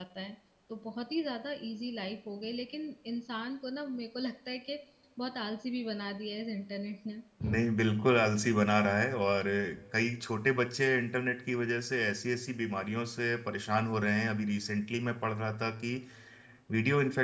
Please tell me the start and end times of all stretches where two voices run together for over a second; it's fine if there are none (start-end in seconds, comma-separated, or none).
none